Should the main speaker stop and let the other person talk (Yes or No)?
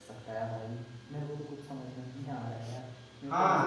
Yes